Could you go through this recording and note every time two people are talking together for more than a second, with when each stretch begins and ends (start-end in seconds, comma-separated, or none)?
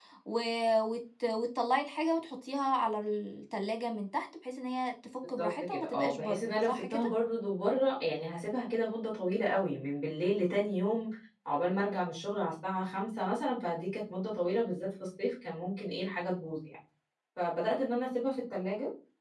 5.4-7.1